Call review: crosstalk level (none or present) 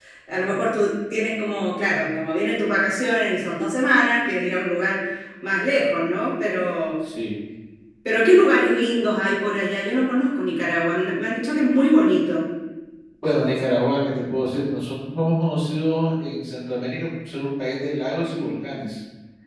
none